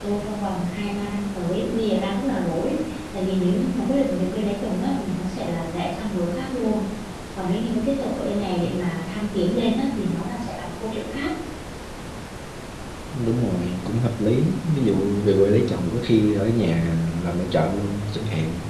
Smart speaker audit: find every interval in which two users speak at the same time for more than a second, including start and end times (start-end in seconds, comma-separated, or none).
none